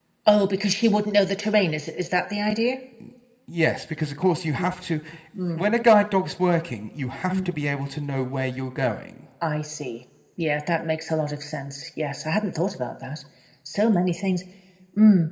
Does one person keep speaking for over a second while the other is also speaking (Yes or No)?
No